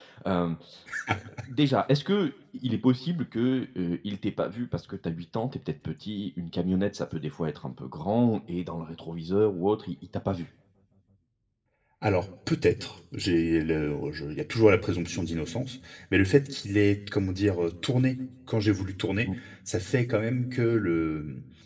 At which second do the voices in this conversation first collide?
none

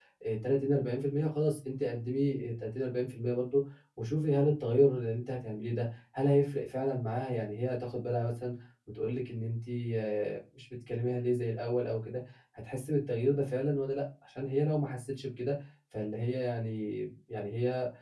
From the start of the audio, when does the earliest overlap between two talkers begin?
none

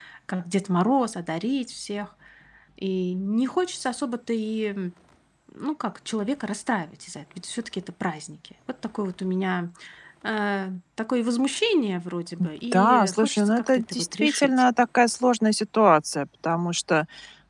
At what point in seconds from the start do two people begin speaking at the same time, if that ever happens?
12.7 s

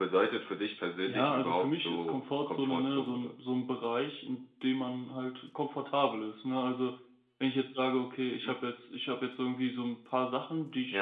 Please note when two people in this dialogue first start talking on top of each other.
1.1 s

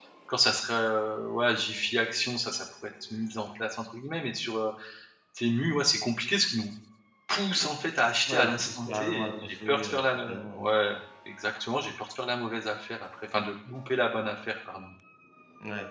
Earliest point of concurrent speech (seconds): 8.3 s

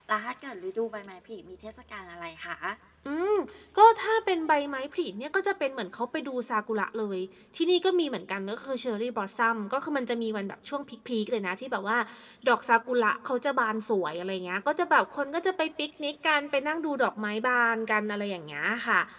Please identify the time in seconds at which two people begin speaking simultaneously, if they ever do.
none

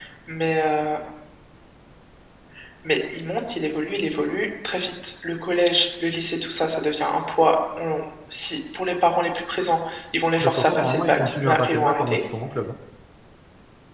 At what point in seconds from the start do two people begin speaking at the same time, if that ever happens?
10.4 s

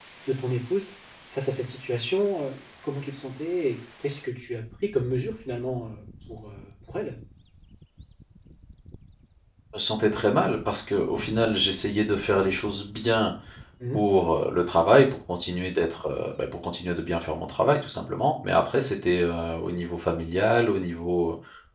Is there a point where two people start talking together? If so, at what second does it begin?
none

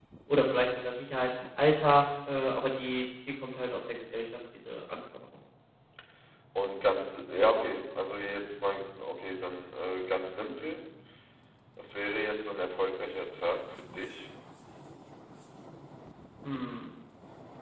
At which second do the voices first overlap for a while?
none

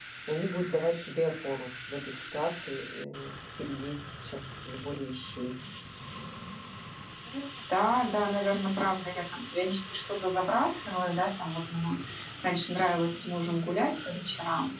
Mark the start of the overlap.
none

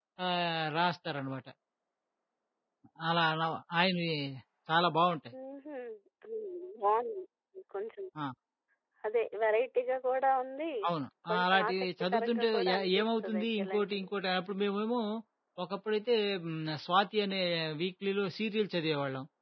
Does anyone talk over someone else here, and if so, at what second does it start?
11.3 s

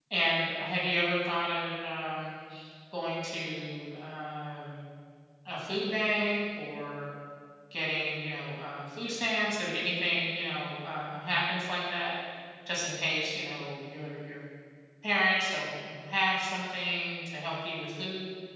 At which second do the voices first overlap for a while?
none

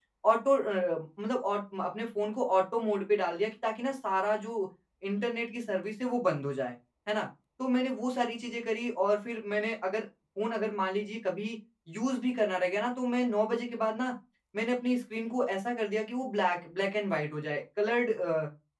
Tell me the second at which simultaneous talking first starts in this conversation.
none

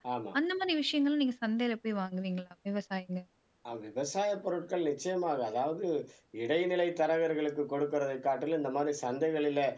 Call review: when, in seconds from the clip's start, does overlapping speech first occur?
none

